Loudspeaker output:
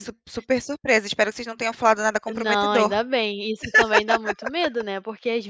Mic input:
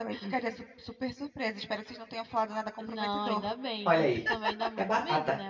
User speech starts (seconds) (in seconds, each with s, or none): 3.8 s